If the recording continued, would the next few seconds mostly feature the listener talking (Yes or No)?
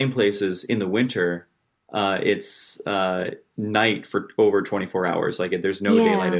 Yes